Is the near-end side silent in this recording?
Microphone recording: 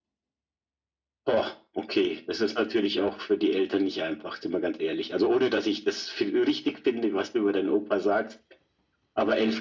Yes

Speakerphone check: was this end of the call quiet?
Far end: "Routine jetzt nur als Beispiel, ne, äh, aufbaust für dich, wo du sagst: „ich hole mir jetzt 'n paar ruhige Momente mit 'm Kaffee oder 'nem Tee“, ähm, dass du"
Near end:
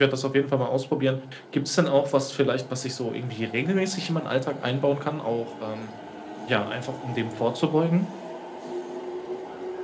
No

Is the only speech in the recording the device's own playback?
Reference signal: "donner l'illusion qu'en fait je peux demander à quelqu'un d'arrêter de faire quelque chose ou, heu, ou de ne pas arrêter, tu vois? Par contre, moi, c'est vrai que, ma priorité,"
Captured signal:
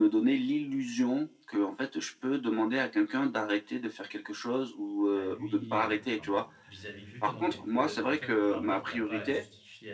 No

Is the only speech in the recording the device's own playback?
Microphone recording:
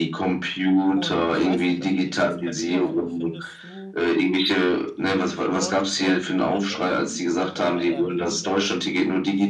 No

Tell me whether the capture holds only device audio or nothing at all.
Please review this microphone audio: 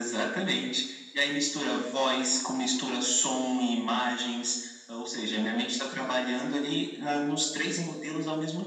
Yes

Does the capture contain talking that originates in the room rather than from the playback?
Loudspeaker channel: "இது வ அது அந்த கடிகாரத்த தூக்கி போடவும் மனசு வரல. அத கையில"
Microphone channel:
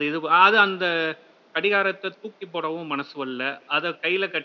No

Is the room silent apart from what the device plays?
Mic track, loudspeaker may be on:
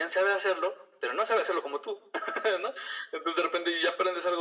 Yes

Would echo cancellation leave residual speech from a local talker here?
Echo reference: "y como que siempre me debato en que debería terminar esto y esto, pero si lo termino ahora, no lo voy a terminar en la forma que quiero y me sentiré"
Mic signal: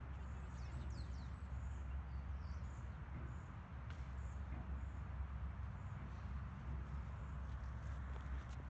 No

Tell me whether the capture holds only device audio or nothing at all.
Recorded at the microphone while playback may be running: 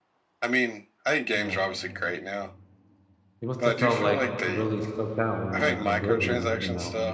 No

